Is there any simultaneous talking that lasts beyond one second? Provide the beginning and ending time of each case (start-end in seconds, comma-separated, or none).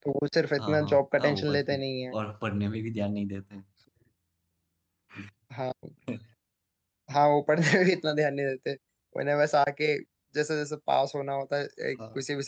0.6-1.8